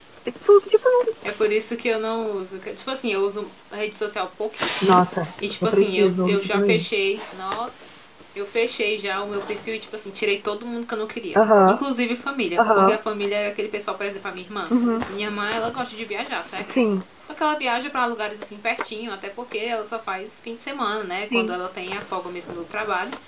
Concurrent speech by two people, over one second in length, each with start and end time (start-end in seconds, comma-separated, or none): 5.6-6.8